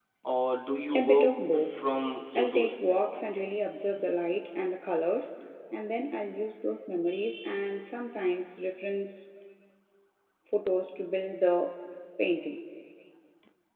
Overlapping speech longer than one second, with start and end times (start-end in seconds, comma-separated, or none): none